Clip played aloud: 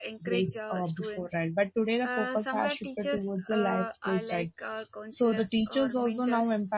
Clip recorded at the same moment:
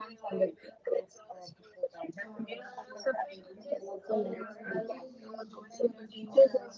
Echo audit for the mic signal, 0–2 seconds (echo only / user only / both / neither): echo only